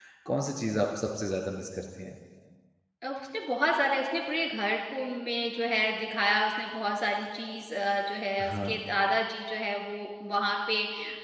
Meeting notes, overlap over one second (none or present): none